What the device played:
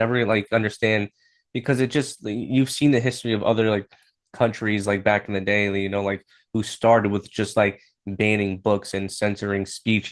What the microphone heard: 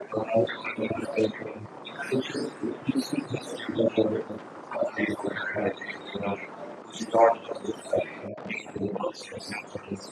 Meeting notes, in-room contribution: none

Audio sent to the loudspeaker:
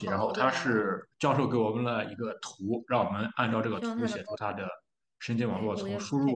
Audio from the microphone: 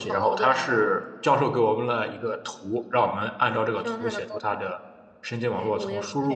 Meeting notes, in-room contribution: none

